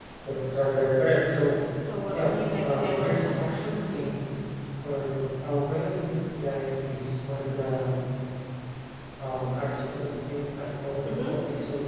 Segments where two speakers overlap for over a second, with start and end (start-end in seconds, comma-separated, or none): 2.1-3.4